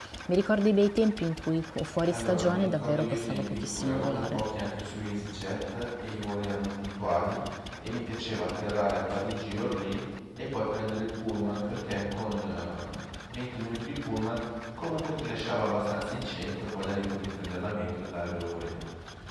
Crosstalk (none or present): present